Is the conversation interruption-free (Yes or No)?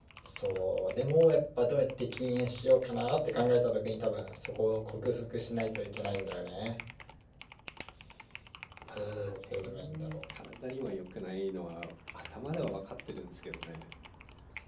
No